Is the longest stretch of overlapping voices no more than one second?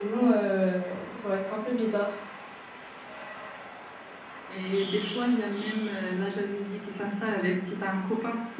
Yes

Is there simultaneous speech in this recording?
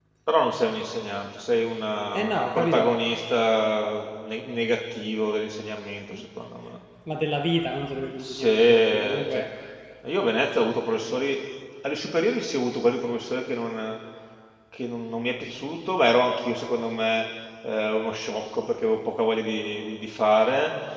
Yes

